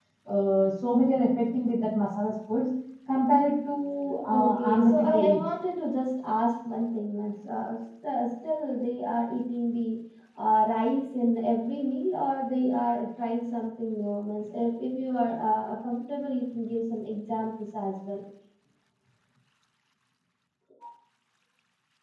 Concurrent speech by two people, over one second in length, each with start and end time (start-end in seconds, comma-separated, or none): 4.3-5.5